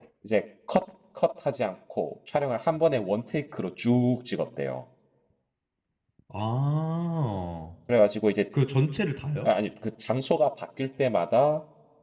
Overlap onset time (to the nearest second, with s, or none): none